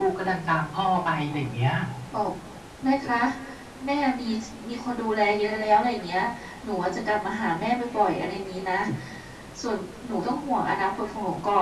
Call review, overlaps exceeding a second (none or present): none